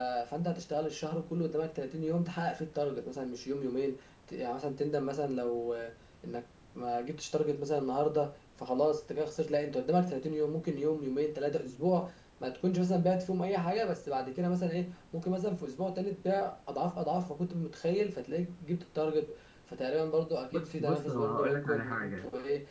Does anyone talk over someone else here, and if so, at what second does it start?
21 s

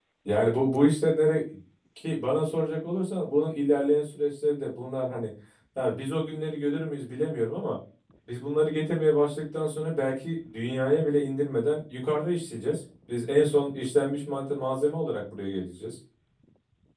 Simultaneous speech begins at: none

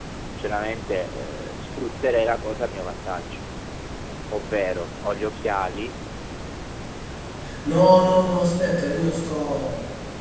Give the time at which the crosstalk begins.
none

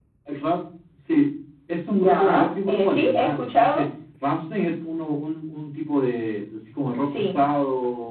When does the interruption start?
2 s

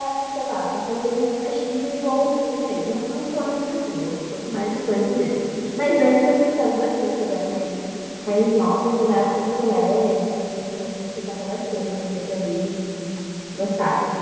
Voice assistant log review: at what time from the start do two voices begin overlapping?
none

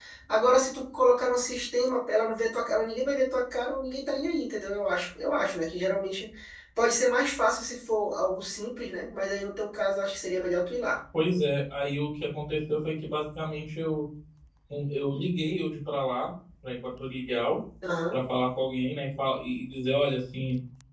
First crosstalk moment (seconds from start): none

